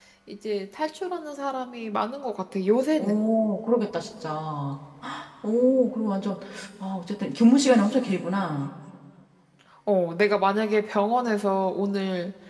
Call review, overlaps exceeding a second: none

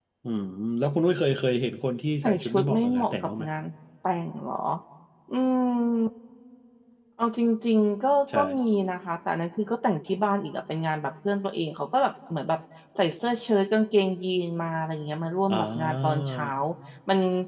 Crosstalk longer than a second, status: present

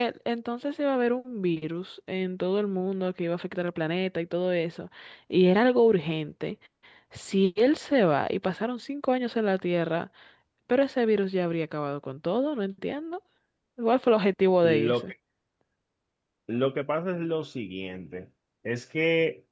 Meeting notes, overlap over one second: none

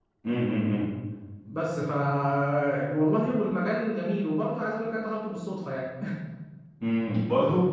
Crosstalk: none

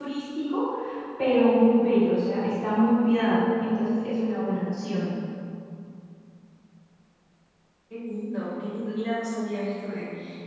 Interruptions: none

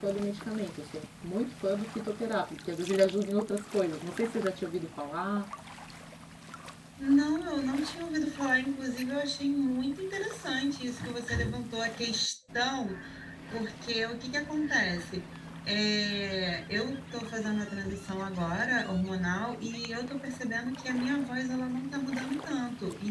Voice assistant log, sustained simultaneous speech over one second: none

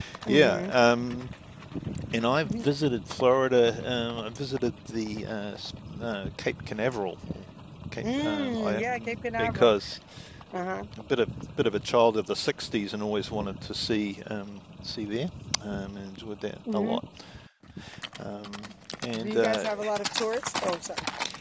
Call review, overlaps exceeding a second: present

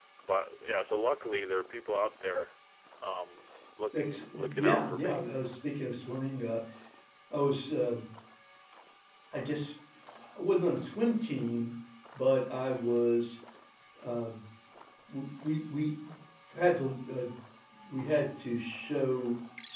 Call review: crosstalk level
present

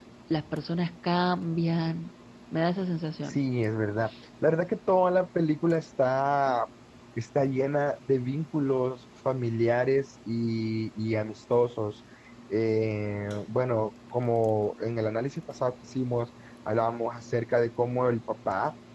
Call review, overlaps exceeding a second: none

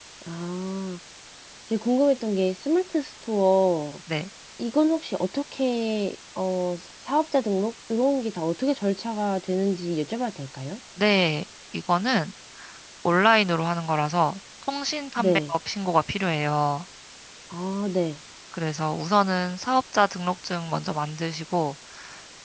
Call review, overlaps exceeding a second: none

